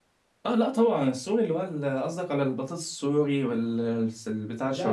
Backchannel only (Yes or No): No